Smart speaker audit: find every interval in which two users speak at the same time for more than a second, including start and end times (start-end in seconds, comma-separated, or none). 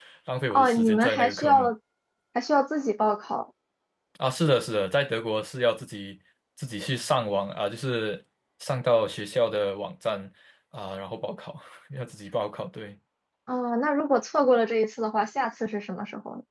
0.5-1.7